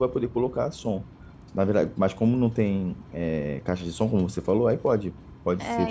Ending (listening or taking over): taking over